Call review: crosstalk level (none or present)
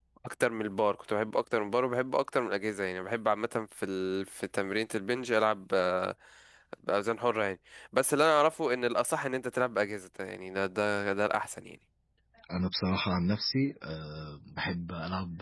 none